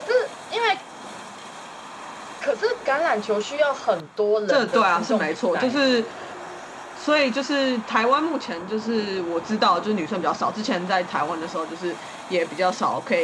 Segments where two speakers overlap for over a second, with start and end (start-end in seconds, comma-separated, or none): 4.5-5.9